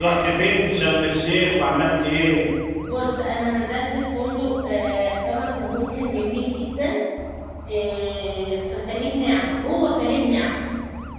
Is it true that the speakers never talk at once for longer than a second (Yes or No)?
Yes